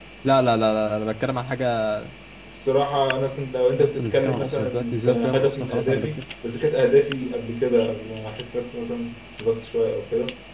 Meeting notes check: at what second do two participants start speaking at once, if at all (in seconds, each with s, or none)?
3.8 s